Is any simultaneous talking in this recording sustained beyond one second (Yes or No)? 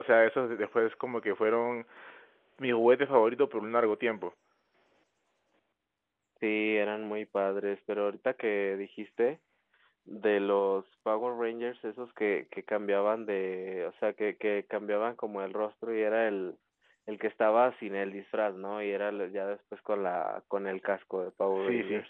No